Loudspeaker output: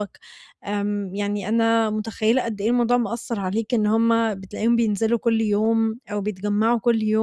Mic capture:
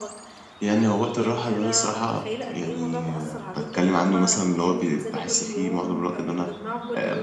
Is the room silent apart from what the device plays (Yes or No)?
No